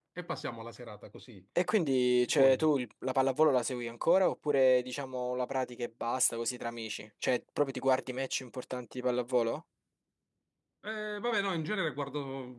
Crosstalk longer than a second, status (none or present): none